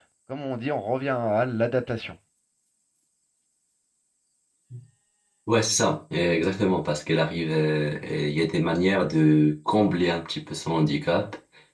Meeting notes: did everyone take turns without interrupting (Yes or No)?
Yes